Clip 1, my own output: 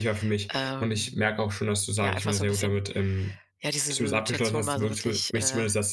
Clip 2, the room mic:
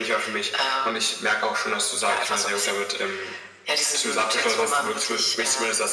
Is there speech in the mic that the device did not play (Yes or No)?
No